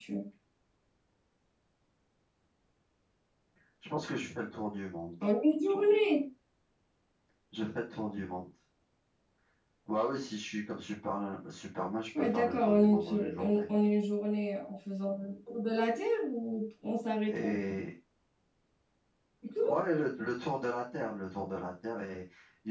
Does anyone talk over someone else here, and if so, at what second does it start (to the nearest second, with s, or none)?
12 s